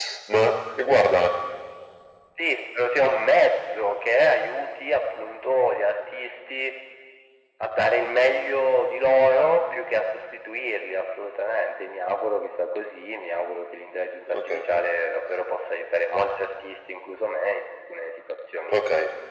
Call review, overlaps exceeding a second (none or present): none